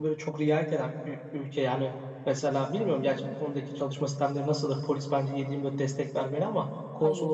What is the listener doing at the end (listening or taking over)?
listening